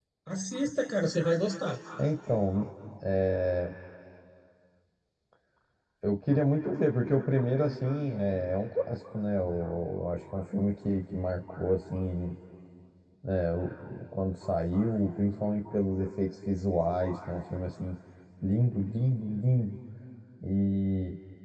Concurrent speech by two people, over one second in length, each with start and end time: none

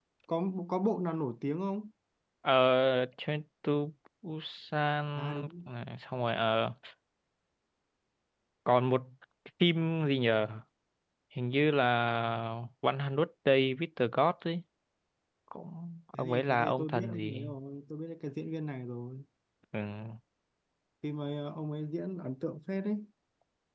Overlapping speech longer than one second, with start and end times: 16.1-17.5

